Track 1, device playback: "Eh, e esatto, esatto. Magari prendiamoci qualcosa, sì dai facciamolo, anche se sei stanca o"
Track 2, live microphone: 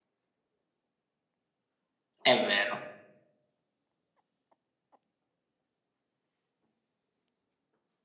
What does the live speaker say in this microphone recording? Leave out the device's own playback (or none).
è vero.